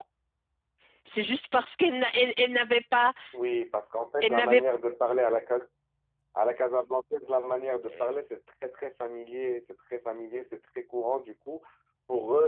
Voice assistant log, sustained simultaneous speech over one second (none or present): none